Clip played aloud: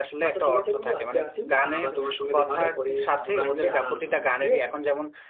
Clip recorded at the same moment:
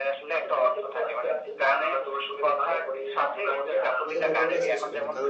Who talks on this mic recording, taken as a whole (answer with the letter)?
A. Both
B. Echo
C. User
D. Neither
A